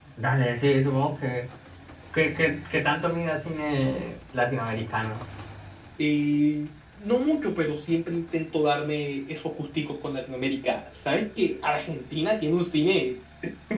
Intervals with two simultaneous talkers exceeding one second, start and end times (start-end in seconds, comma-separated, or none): none